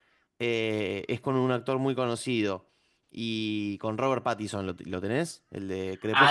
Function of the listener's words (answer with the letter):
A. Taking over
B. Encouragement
A